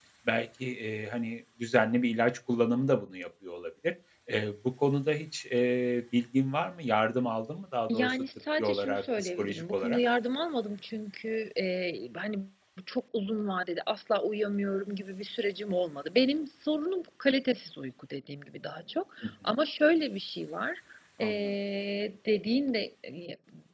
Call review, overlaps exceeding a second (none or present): present